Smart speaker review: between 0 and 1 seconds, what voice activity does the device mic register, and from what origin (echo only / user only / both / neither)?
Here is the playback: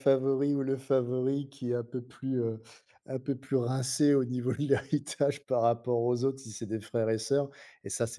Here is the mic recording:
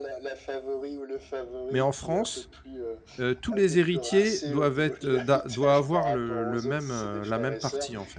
echo only